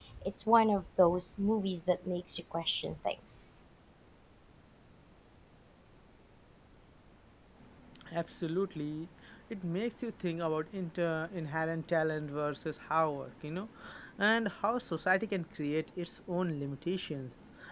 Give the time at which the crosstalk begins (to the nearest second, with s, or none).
none